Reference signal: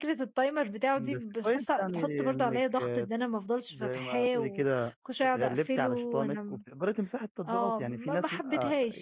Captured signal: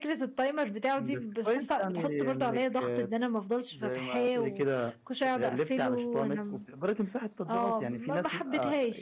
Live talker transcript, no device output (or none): none